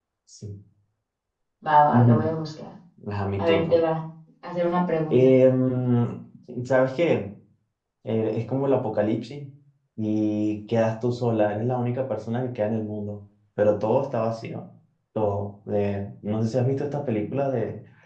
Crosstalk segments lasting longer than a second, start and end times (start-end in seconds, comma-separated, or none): none